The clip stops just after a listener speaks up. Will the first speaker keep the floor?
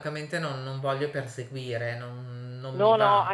No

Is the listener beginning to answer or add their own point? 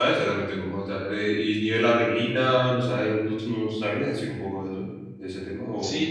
Yes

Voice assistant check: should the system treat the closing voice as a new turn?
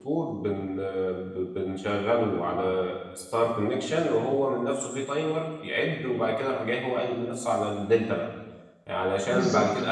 No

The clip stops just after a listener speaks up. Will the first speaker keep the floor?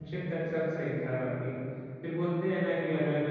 Yes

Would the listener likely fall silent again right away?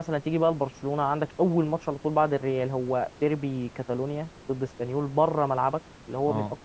Yes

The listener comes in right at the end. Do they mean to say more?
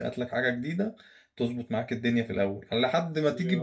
No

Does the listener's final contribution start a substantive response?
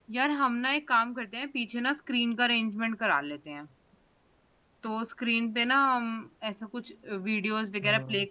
No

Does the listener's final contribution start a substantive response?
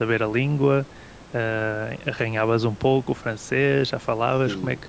Yes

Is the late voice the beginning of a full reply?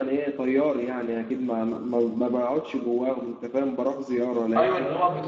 Yes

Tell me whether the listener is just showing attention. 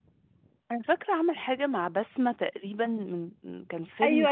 No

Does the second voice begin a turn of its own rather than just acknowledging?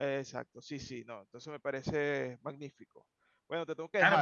Yes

